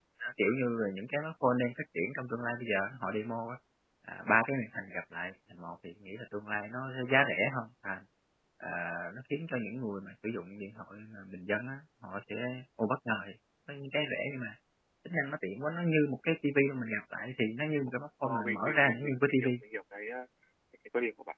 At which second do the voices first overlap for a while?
18.2 s

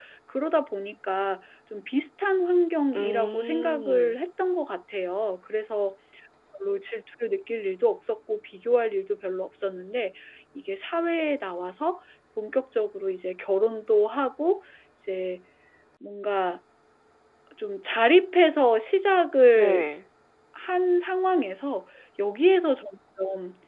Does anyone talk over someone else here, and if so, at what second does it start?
3.0 s

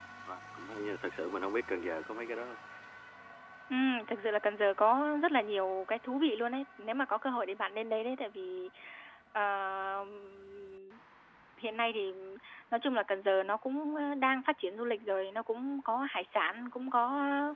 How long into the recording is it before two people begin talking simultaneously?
none

